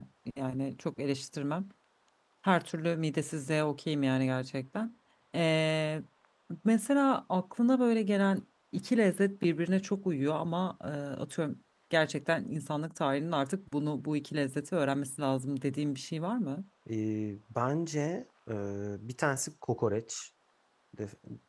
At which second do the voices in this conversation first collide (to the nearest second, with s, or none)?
none